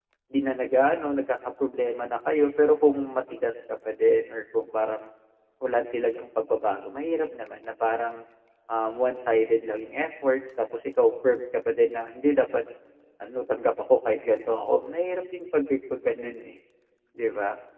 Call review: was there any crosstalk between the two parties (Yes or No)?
No